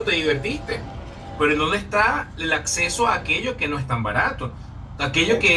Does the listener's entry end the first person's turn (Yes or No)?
No